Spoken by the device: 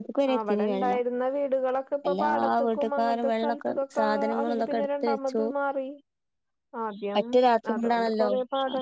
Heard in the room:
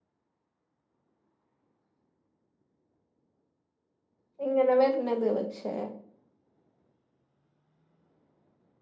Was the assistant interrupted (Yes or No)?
Yes